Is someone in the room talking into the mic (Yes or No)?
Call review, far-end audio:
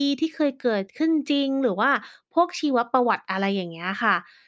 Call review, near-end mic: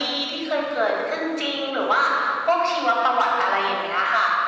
No